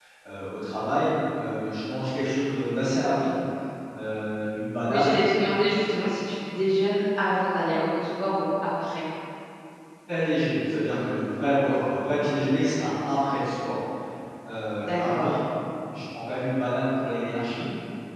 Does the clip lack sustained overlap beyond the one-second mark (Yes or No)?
Yes